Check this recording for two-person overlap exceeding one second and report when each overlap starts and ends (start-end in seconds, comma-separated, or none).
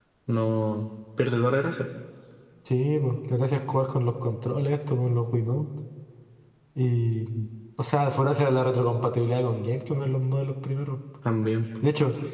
none